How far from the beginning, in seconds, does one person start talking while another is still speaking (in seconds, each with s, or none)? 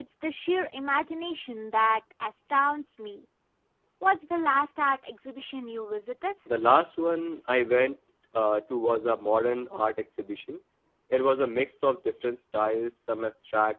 none